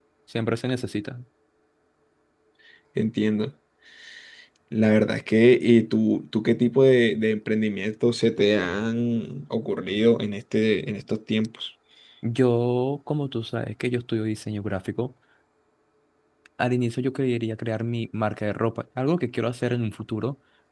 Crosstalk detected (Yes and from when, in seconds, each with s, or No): No